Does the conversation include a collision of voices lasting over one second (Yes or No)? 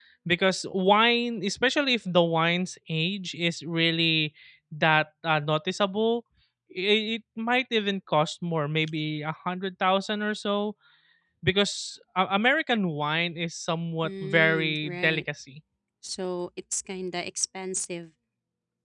Yes